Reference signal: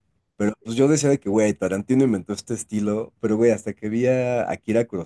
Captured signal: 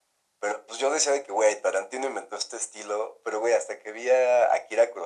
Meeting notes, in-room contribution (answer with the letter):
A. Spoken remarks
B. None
B